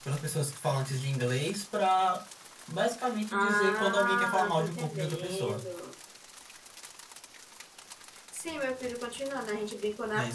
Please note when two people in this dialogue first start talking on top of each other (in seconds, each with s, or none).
3.3 s